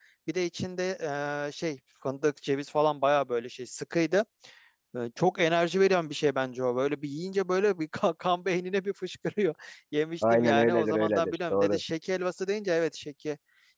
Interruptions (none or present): present